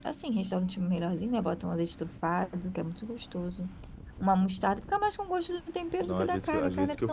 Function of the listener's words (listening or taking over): taking over